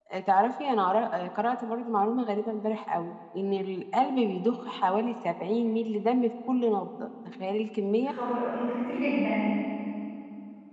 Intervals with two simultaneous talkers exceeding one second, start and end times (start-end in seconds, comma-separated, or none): none